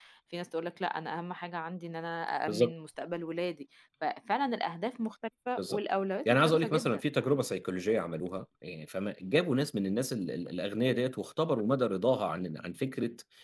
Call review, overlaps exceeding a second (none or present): present